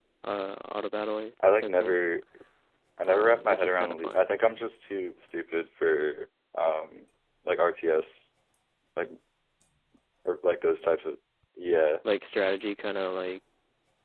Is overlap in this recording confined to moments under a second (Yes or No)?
No